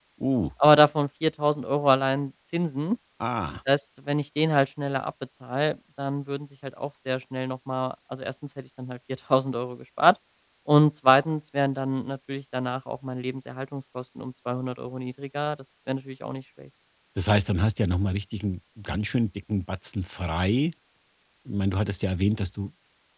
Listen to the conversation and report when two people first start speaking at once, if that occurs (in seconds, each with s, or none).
none